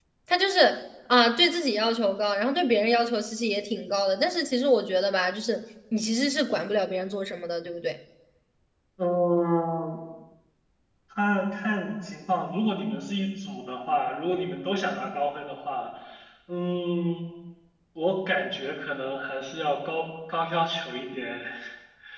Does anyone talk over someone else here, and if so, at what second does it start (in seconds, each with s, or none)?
none